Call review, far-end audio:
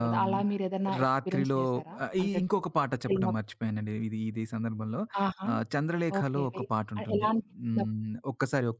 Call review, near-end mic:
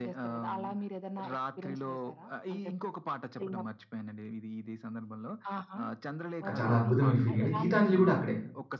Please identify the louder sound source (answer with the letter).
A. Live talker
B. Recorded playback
A